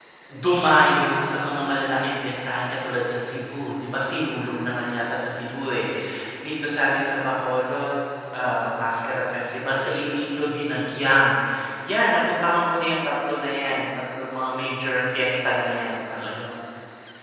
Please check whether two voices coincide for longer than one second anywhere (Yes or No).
No